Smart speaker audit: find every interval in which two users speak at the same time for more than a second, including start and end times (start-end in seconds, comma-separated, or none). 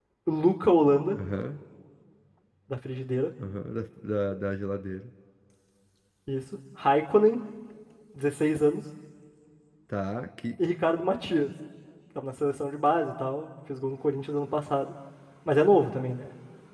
none